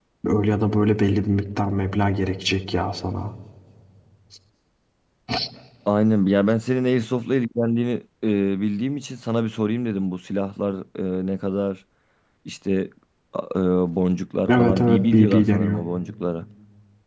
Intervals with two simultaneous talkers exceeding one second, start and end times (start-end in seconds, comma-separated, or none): 14.5-15.8